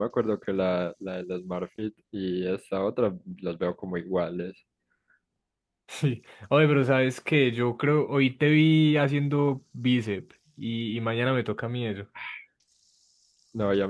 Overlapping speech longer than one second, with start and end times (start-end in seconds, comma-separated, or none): none